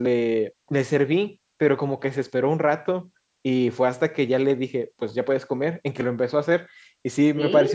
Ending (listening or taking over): listening